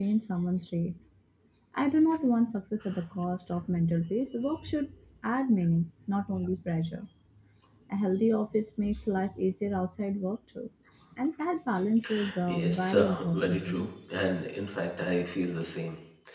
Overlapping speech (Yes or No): Yes